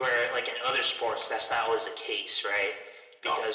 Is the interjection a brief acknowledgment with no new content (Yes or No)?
Yes